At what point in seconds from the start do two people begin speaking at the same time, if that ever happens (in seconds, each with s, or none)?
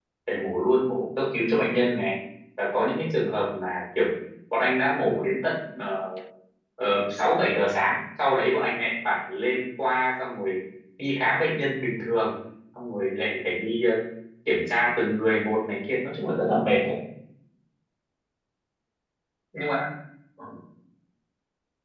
none